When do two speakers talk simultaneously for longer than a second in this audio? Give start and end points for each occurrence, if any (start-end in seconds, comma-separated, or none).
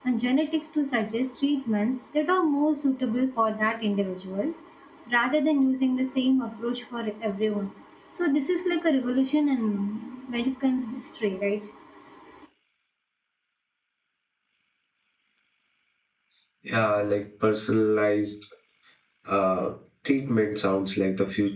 none